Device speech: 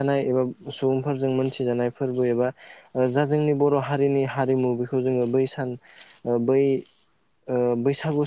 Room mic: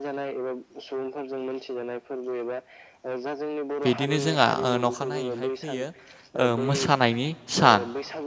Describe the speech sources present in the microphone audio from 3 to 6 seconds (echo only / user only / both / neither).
both